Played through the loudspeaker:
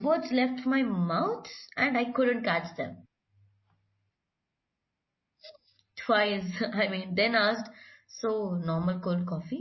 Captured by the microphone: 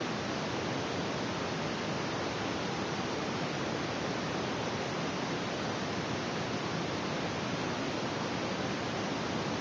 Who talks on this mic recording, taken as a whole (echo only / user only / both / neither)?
neither